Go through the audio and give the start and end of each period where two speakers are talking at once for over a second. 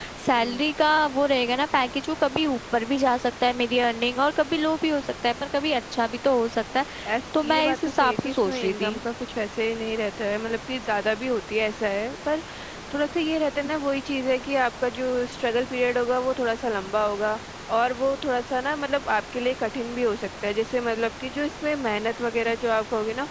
7.4-9.0

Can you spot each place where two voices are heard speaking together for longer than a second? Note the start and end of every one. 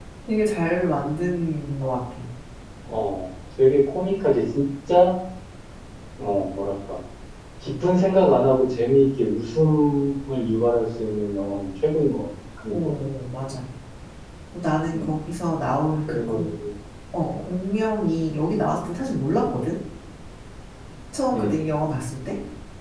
none

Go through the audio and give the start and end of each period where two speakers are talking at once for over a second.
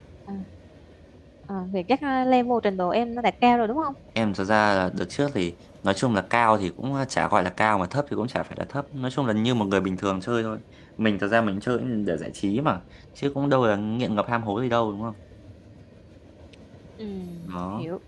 none

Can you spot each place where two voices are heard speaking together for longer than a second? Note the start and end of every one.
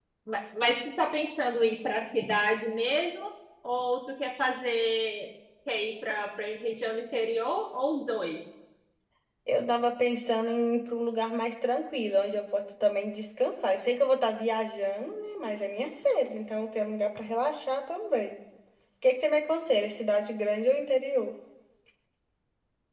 none

